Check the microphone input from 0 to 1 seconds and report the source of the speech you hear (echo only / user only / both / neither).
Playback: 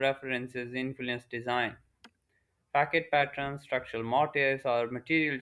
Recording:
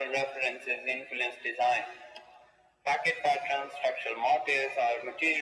echo only